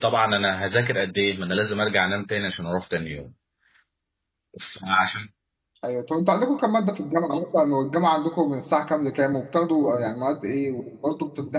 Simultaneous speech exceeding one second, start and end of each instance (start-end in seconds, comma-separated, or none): none